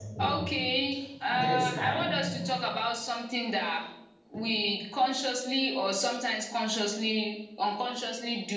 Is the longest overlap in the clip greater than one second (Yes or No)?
Yes